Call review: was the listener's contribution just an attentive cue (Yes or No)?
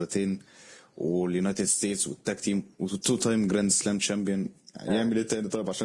No